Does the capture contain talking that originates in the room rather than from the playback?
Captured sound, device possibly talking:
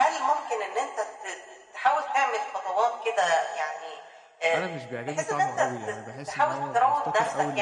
Yes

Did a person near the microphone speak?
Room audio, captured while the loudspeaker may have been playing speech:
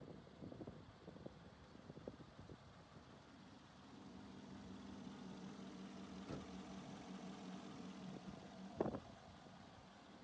No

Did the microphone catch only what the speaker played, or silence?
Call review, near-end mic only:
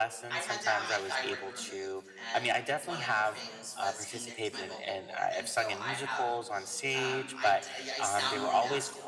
No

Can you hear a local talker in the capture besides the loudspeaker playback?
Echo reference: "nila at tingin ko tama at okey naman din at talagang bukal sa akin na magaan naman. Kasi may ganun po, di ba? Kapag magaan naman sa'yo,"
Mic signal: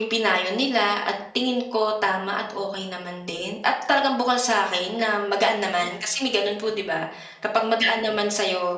No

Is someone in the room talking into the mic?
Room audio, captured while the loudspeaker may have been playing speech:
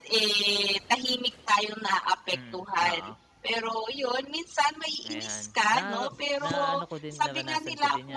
Yes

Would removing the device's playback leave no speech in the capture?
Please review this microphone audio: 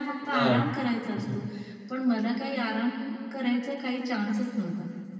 No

